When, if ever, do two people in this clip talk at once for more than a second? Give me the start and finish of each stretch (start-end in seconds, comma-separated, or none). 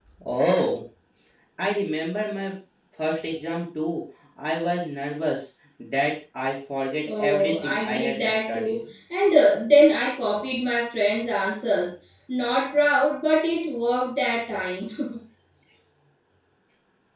7.0-8.8